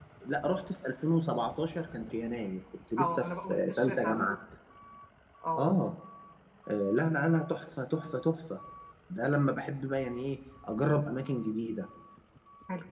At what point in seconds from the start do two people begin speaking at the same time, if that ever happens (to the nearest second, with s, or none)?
3 s